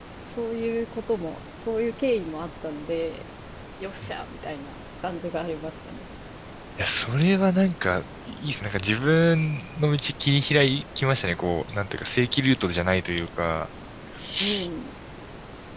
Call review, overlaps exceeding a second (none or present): none